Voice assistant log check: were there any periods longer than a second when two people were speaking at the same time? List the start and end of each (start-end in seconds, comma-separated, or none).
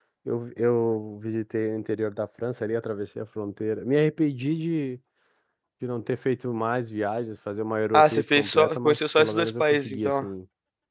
7.9-10.2